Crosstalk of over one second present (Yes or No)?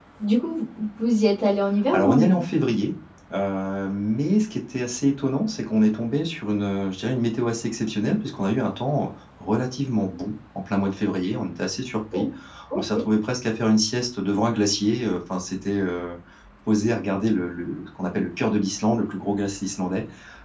No